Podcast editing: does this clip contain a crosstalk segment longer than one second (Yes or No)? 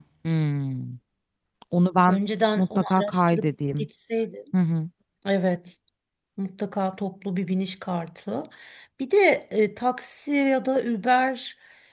Yes